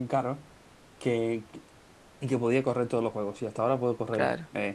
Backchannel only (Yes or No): Yes